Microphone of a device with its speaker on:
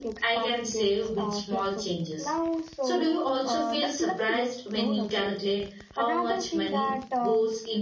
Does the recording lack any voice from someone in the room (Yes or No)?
No